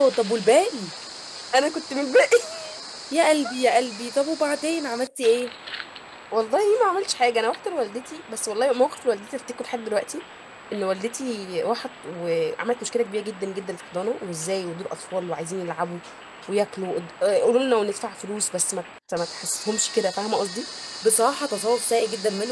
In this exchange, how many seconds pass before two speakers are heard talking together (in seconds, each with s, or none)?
none